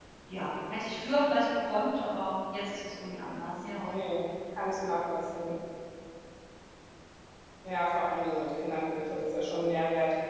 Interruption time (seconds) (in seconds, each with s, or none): none